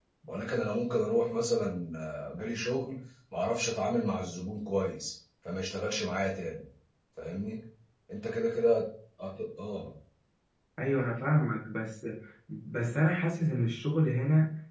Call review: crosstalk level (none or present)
none